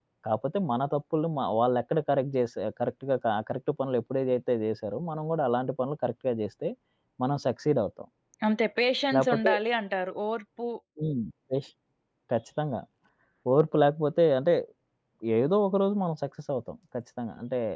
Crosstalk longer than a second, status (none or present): none